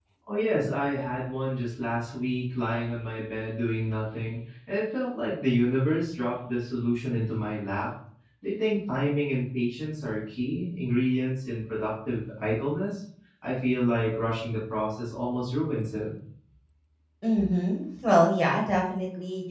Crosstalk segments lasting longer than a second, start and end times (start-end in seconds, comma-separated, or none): none